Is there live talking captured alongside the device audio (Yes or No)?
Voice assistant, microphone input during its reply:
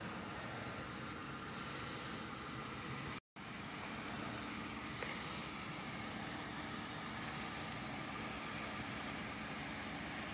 No